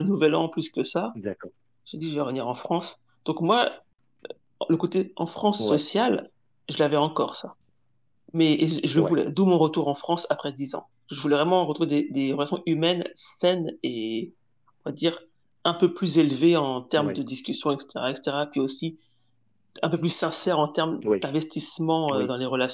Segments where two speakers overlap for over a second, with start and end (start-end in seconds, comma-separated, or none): none